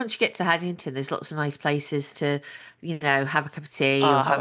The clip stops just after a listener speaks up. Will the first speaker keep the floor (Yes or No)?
No